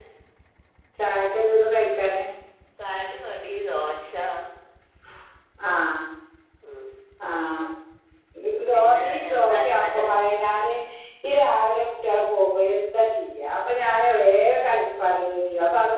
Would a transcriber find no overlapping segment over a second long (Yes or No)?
No